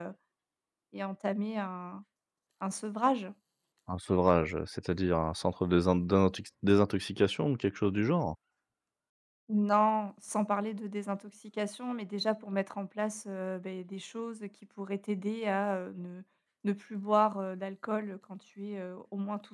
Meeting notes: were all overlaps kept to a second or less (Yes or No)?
Yes